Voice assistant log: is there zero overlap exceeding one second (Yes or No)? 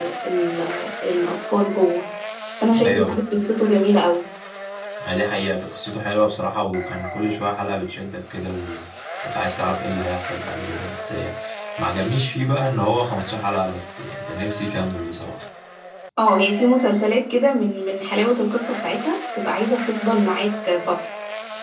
Yes